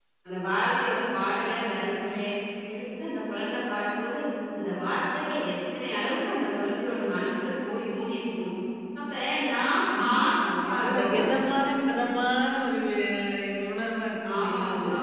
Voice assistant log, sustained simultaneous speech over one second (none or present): present